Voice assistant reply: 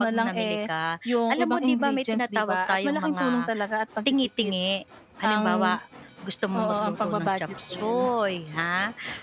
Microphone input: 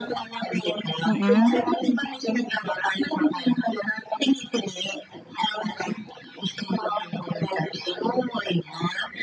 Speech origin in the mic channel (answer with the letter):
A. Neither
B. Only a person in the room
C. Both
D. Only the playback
C